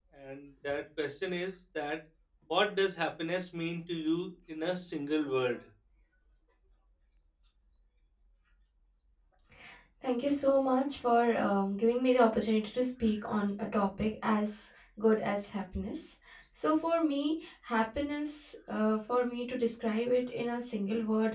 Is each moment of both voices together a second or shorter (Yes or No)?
Yes